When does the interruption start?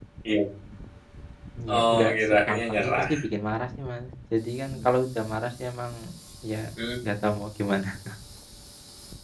1.8 s

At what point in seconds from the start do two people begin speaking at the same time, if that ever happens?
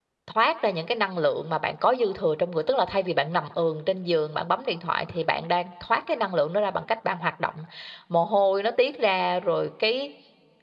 none

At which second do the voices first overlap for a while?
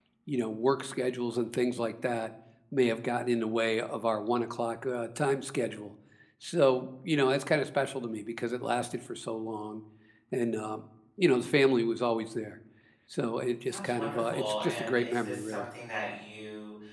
13.7 s

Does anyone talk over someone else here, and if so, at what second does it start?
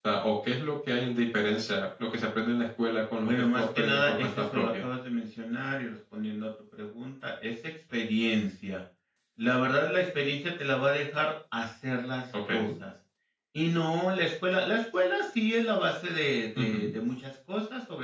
3.2 s

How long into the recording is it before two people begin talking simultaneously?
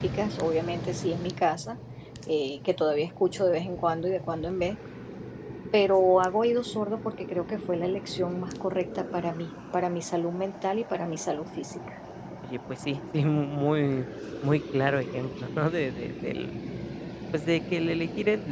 none

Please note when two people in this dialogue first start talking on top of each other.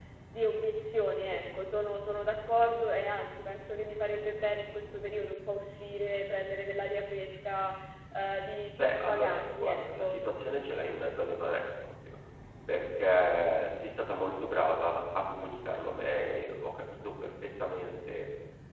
8.8 s

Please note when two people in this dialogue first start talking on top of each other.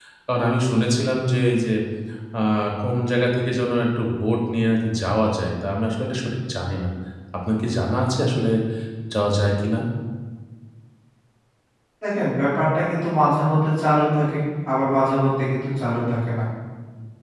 none

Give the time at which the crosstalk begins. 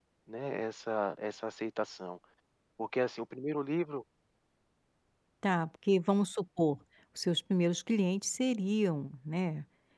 none

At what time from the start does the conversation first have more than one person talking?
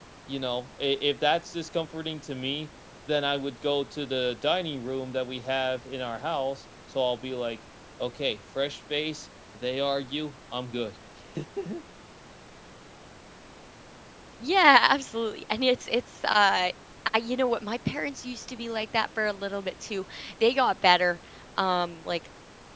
none

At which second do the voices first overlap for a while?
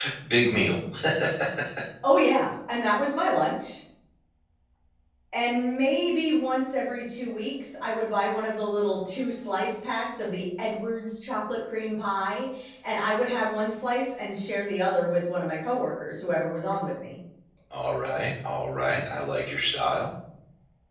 none

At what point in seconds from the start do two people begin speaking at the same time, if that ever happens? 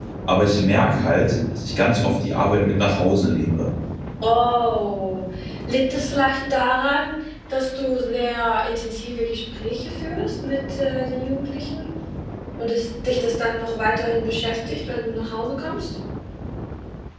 none

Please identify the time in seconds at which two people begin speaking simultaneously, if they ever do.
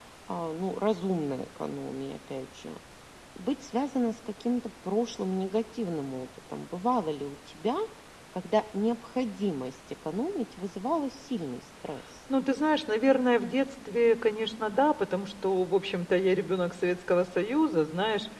none

